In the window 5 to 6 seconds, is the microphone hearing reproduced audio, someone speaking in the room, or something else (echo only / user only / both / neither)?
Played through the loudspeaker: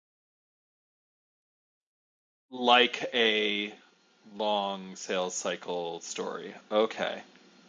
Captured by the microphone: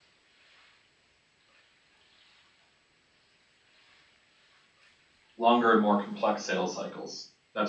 user only